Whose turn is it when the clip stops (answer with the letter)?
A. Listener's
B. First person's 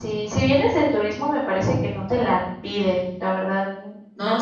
A